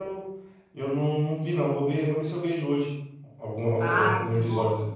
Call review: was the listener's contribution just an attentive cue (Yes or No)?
No